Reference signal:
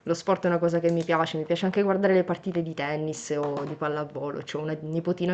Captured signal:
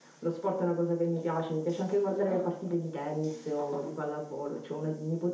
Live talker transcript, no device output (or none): Ah,